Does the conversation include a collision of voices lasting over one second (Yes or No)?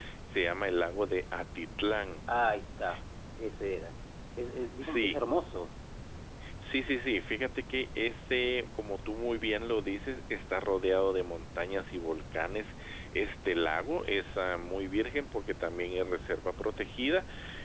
No